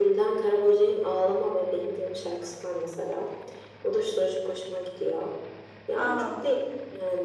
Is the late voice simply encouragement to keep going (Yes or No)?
Yes